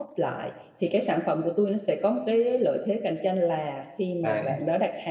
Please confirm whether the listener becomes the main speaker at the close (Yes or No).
No